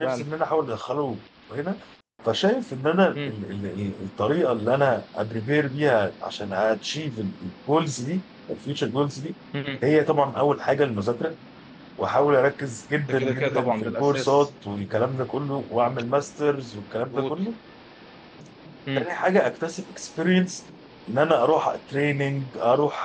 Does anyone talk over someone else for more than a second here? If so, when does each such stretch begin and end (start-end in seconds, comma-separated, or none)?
13.1-14.5